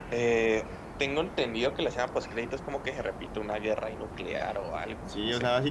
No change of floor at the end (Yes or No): No